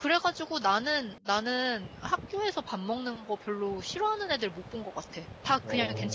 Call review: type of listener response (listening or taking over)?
listening